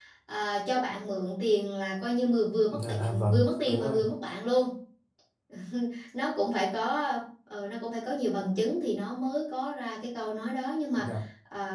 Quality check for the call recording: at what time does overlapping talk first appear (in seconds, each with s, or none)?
2.7 s